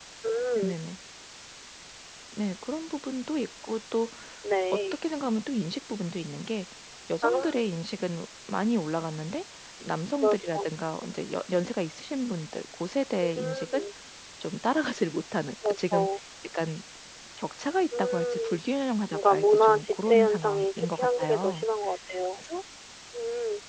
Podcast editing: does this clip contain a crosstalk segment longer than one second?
Yes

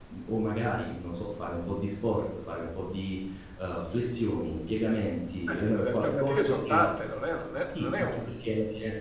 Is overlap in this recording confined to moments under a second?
No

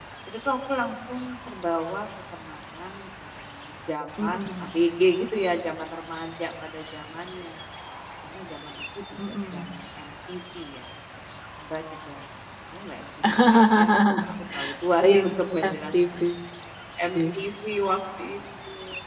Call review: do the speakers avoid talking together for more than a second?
No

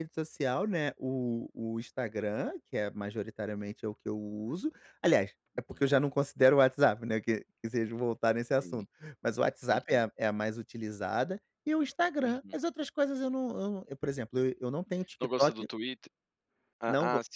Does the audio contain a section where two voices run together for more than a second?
No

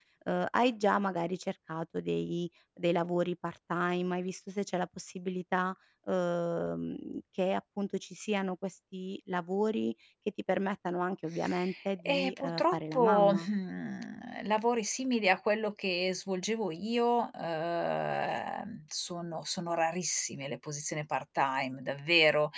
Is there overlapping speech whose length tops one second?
Yes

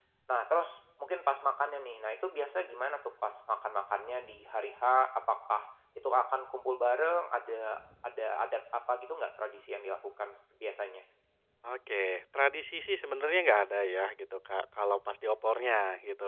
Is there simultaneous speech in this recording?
No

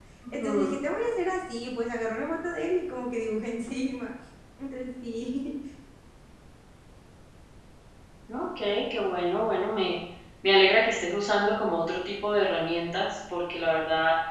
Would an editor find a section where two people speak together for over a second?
No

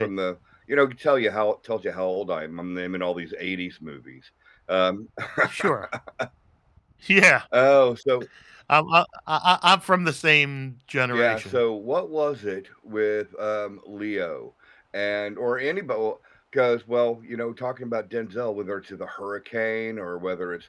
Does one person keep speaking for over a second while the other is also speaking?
No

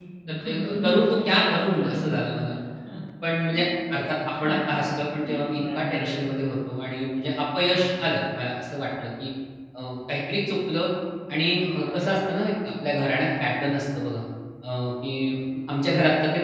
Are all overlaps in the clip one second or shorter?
No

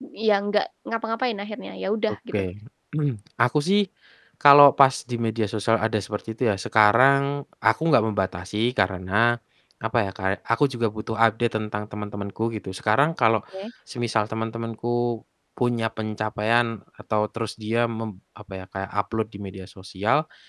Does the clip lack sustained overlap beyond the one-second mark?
Yes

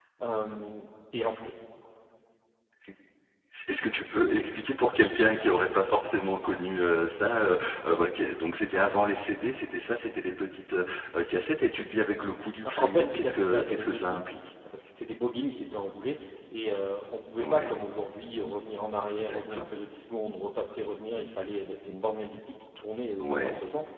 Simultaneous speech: Yes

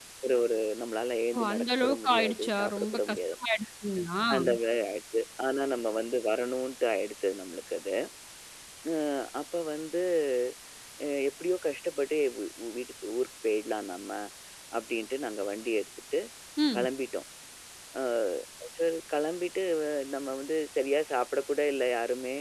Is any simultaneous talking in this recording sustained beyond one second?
Yes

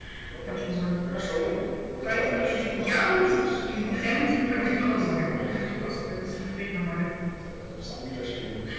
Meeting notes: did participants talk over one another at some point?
Yes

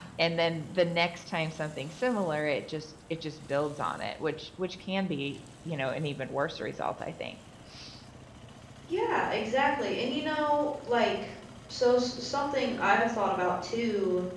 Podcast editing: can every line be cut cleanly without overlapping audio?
Yes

